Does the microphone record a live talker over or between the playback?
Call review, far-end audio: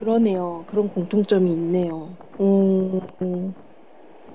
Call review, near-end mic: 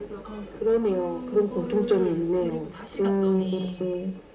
Yes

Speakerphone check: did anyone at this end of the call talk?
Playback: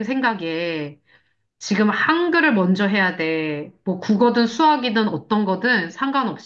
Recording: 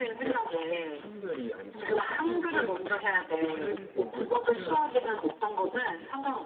Yes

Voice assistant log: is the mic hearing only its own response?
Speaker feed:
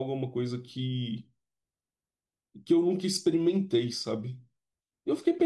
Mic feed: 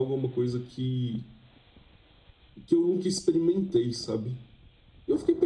Yes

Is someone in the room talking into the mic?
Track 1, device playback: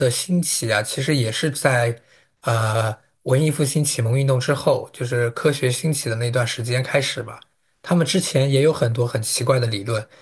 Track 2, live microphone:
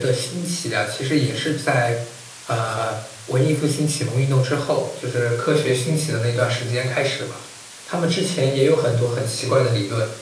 No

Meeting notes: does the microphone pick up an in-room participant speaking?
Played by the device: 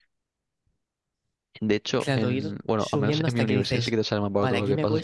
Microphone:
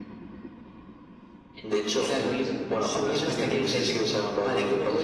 No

